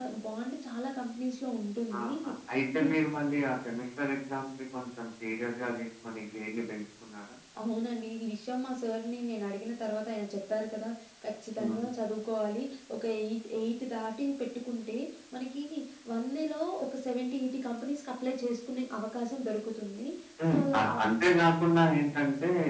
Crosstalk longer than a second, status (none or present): none